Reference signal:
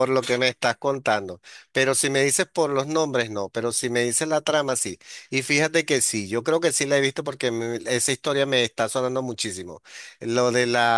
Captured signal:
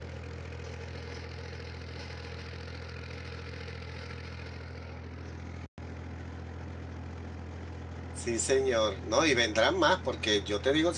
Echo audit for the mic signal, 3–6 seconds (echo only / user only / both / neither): neither